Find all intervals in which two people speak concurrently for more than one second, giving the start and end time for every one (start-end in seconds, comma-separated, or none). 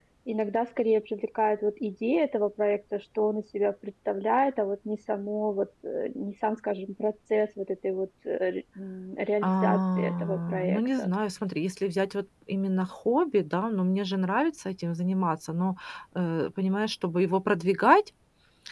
9.4-11.1